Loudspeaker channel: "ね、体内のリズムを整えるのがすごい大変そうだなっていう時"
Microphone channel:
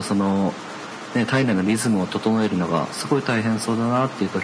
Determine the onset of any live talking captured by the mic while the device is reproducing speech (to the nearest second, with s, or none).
none